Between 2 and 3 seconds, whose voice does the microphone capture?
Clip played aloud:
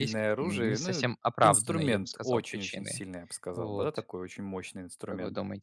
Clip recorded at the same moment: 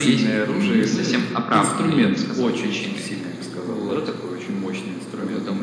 echo only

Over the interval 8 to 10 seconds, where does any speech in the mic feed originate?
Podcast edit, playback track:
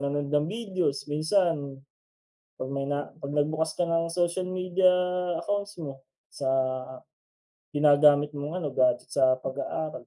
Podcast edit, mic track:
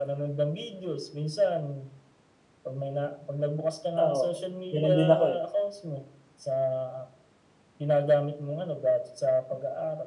echo only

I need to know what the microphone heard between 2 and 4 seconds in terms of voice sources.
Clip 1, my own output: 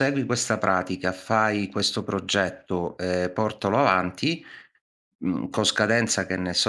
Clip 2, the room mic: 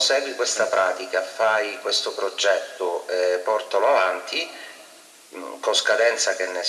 echo only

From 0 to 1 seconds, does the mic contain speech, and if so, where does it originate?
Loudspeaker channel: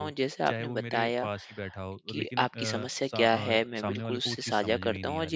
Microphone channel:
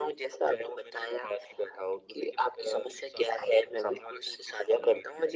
echo only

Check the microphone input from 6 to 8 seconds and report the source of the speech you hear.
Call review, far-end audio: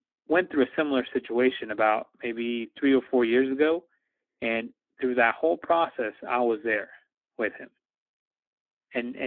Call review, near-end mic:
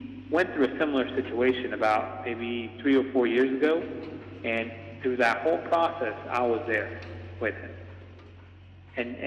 echo only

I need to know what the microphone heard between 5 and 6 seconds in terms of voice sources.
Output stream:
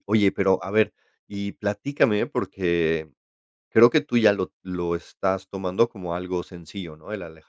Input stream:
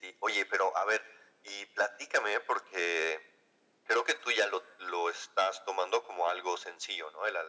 echo only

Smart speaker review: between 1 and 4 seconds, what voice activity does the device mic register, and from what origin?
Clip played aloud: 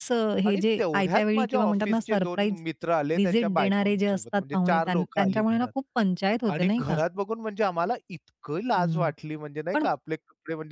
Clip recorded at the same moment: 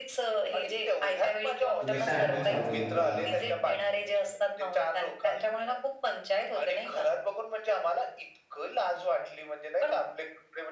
both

